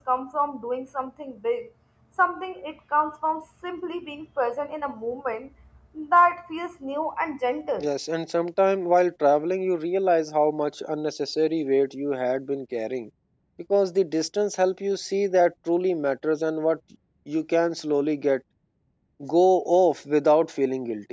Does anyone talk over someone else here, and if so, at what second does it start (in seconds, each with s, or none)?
none